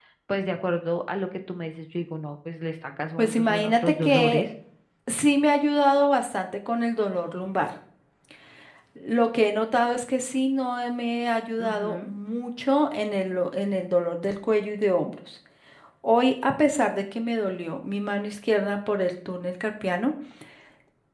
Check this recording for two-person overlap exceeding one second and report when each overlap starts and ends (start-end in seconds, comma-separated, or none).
3.2-4.4